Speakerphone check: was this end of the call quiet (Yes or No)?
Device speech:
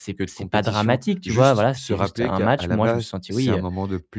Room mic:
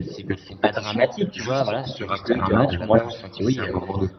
Yes